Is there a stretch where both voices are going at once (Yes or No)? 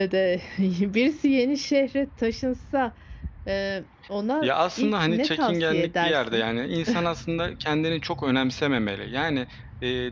Yes